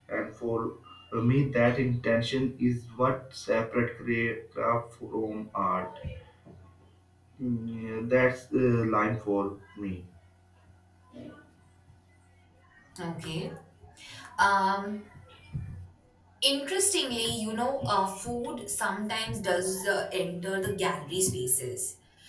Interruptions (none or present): none